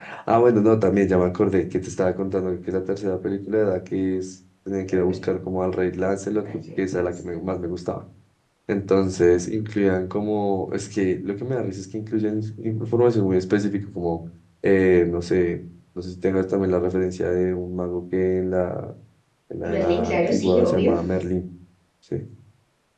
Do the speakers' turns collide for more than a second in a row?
Yes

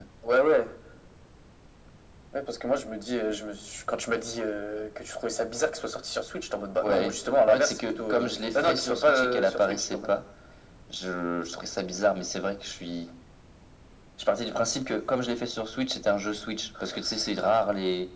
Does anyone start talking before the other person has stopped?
Yes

